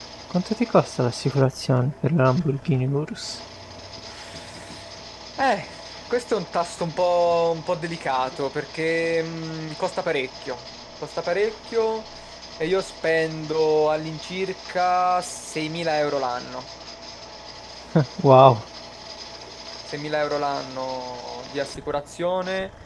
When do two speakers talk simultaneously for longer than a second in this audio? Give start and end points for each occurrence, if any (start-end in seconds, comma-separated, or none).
none